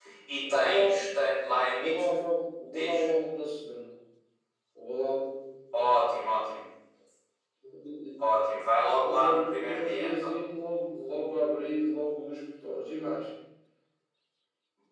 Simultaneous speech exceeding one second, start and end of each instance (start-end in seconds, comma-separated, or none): 9.0-10.3